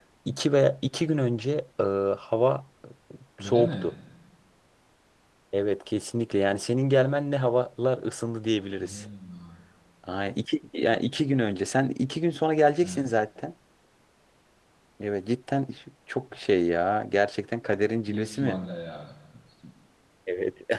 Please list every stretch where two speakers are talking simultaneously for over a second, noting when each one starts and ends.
none

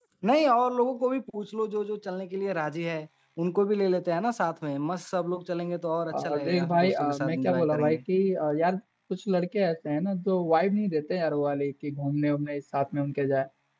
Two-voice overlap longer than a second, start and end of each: 6.1-8.0

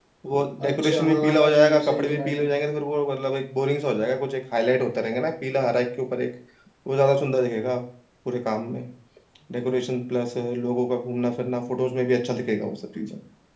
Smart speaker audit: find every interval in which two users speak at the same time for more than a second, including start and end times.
0.7-2.5

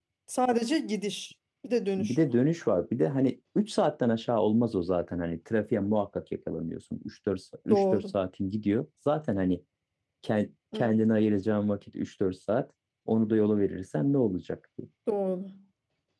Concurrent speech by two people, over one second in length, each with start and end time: none

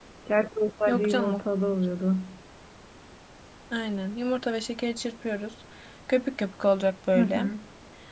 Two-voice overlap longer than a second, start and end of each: none

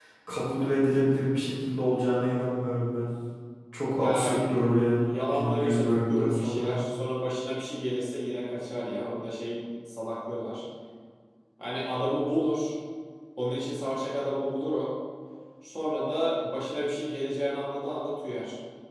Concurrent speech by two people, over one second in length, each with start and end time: 5.1-6.8

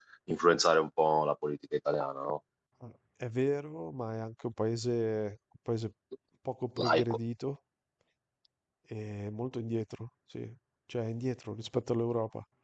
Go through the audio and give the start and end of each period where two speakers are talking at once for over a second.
none

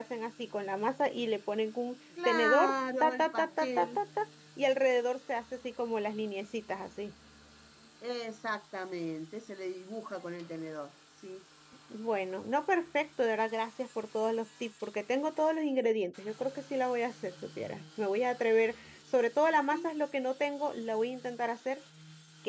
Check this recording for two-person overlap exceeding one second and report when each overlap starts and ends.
2.2-4.0

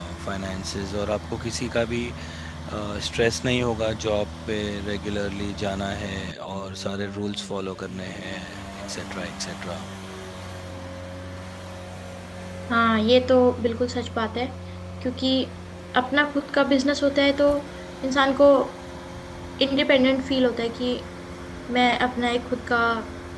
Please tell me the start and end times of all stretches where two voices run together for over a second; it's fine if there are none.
none

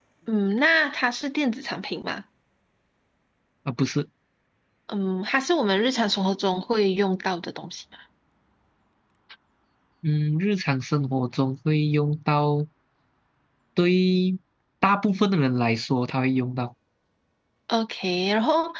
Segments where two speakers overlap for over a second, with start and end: none

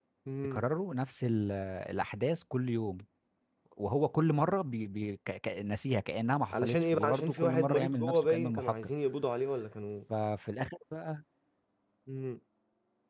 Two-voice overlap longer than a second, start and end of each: 6.5-8.7

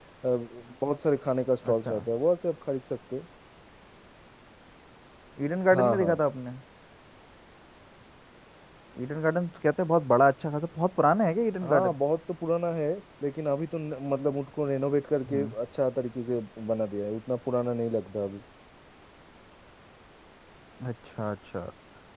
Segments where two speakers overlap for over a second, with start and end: none

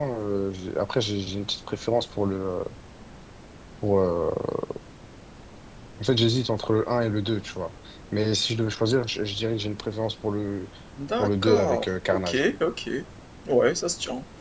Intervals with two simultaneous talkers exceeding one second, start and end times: 11.2-12.4

